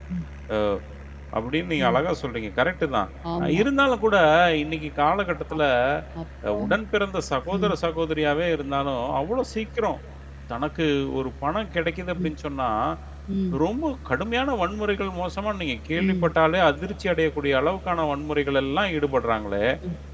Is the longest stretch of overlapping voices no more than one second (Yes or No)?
Yes